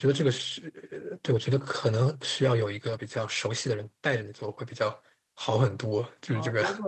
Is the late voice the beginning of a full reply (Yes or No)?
Yes